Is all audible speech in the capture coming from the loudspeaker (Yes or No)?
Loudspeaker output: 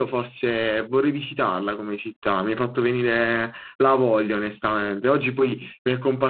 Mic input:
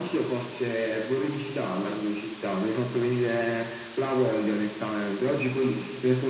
Yes